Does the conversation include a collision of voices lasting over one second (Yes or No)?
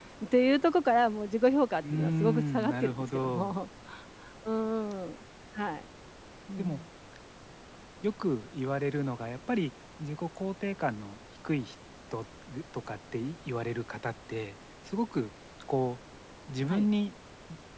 Yes